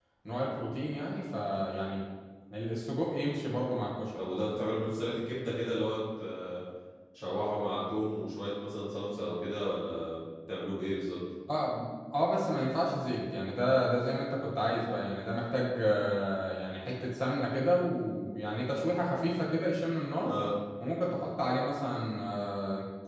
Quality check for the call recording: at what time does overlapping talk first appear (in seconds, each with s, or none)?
none